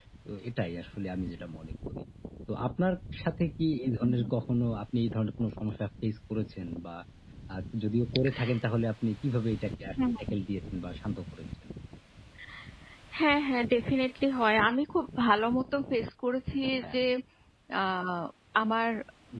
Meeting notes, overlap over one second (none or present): none